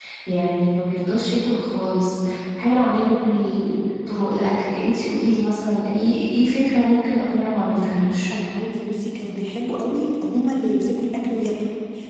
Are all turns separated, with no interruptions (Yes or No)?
Yes